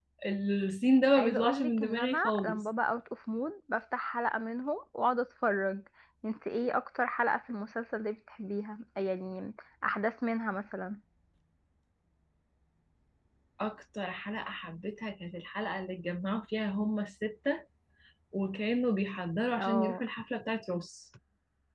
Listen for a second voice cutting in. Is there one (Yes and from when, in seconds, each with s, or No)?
Yes, from 1.2 s